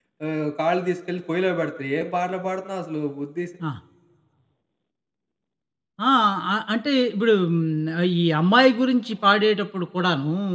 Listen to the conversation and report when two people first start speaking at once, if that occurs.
none

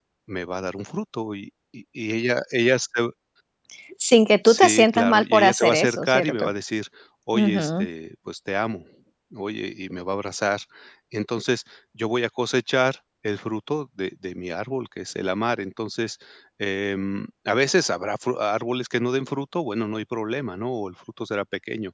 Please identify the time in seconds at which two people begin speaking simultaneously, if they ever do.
4.5 s

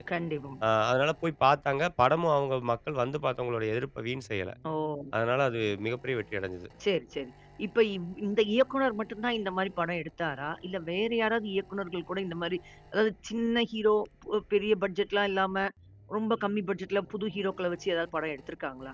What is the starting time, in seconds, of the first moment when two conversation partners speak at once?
none

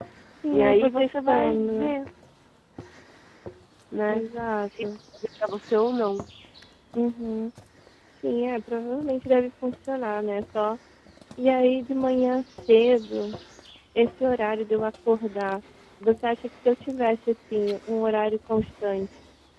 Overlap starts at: 0.5 s

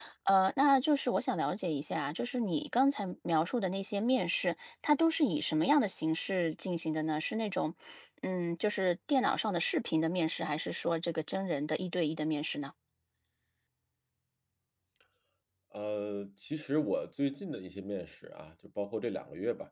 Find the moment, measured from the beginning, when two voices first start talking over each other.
none

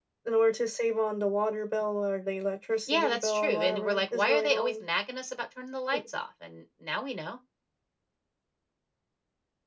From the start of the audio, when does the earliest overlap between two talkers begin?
2.9 s

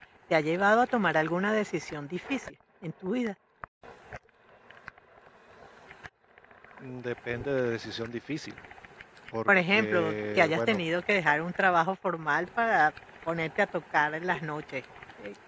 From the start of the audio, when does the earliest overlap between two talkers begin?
9.5 s

